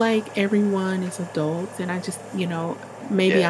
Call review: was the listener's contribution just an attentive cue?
Yes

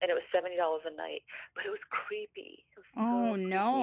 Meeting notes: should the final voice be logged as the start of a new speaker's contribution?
Yes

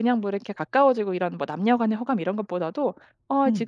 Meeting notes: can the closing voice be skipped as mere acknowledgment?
Yes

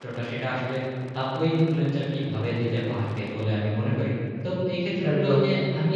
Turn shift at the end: No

